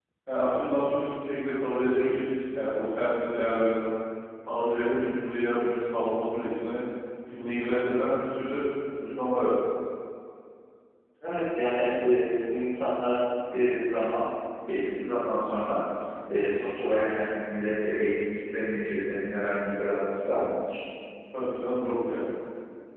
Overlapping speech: No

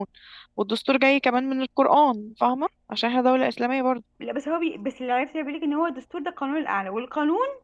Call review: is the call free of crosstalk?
Yes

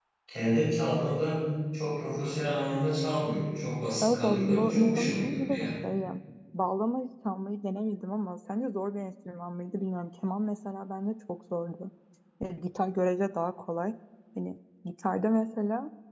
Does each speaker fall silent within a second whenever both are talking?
No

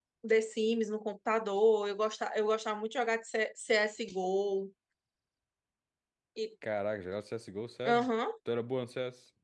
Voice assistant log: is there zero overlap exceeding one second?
Yes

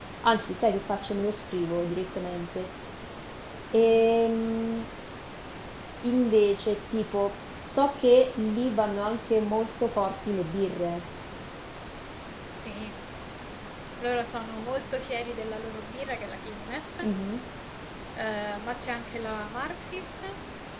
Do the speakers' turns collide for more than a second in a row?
No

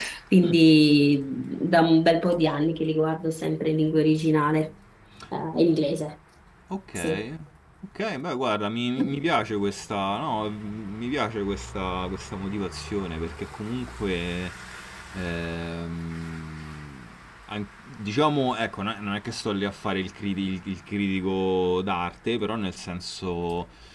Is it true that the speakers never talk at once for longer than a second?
Yes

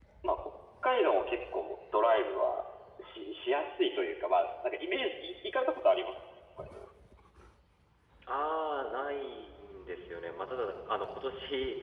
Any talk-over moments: No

